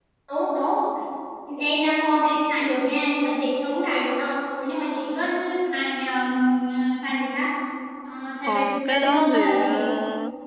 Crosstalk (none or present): present